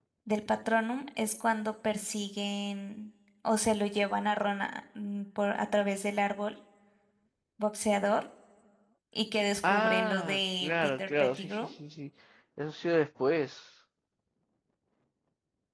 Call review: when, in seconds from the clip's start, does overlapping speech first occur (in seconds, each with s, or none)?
9.7 s